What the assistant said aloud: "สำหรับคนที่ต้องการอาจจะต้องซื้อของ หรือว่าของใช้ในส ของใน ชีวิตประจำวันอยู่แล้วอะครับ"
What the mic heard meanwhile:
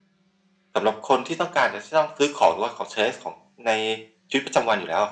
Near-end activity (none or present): none